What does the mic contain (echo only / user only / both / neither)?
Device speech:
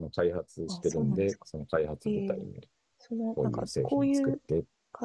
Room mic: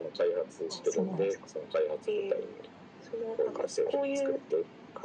both